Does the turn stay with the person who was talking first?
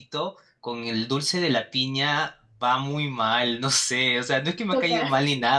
Yes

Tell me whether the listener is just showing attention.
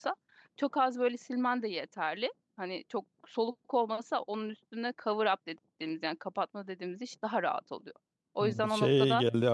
No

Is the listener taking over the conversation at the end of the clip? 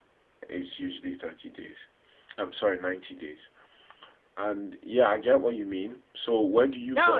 Yes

